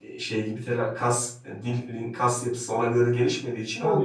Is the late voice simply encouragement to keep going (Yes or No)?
No